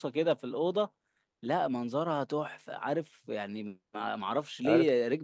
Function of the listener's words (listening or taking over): taking over